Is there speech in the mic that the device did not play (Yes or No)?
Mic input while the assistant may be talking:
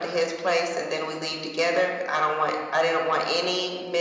No